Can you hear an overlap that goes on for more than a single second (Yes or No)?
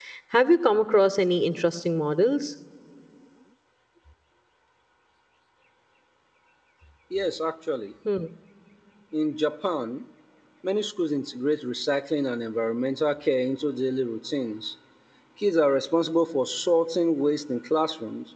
No